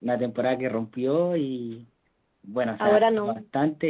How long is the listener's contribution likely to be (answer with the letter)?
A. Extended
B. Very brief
B